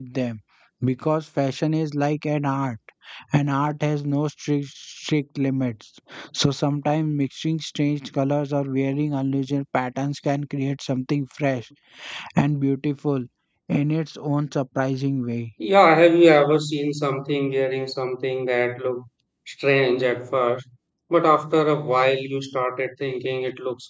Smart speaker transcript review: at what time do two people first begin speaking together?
none

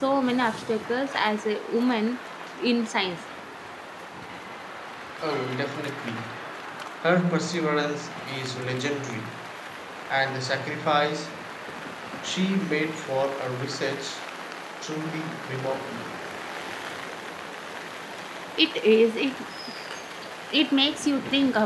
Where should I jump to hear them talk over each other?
none

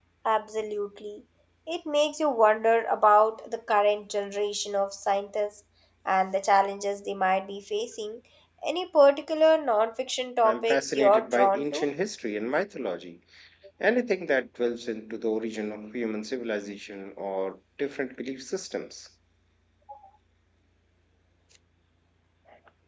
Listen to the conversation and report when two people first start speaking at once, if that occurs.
10.4 s

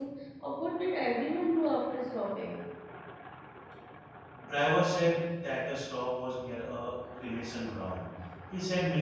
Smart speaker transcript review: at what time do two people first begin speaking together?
none

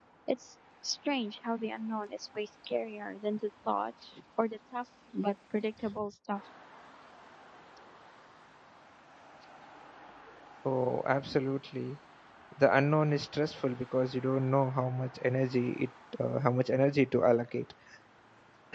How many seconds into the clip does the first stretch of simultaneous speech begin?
none

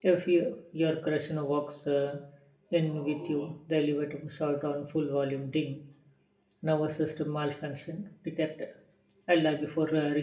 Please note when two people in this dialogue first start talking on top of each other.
none

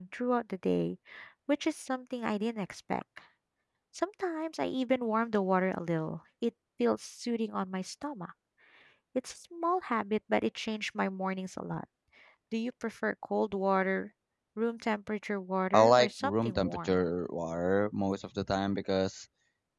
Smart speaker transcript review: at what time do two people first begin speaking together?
15.7 s

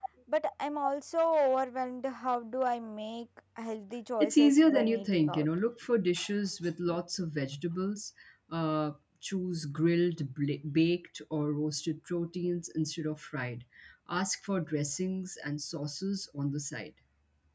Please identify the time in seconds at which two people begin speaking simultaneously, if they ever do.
4.2 s

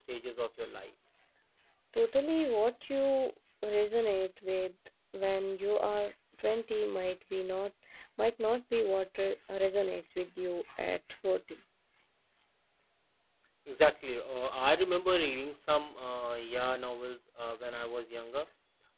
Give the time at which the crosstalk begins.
none

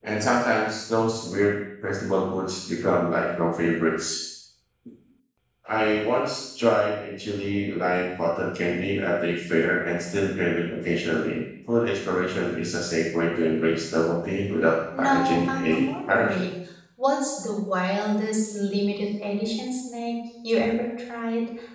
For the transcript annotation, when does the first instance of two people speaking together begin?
14.9 s

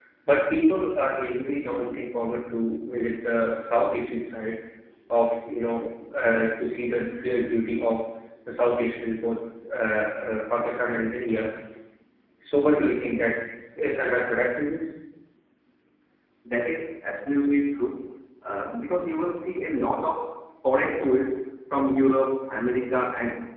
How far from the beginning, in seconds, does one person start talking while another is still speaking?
none

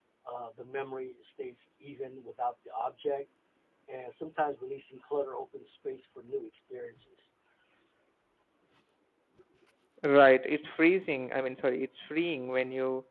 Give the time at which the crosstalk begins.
none

